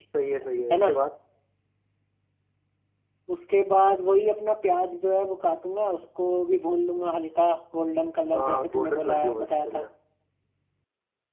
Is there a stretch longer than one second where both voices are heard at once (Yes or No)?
Yes